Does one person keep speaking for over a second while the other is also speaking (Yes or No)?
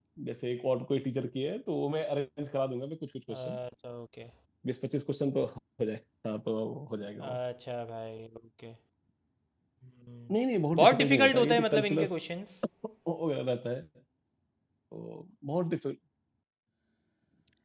Yes